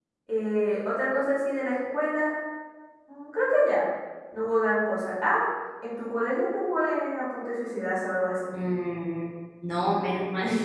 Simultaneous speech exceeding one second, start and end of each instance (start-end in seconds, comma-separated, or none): none